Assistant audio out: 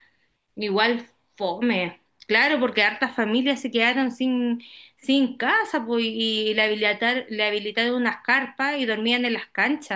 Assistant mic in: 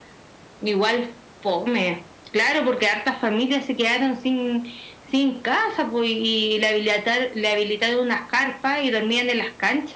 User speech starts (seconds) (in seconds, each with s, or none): none